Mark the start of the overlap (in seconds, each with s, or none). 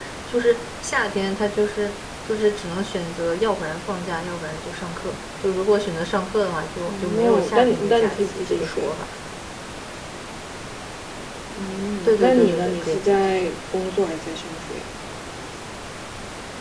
7.1 s